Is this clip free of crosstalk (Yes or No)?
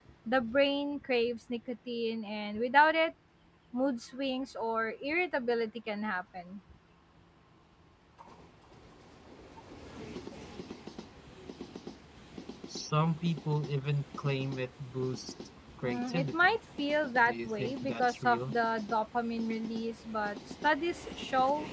No